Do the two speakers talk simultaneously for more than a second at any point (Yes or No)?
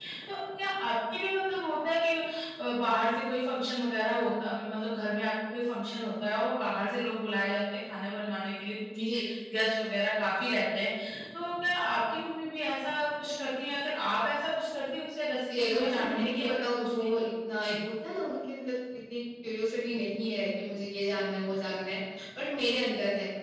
Yes